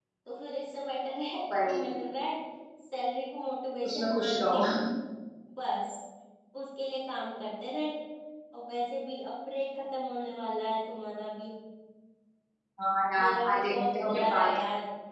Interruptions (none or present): present